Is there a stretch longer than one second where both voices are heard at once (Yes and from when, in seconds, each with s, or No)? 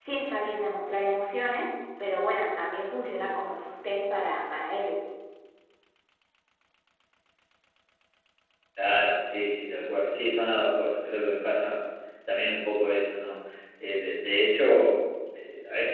No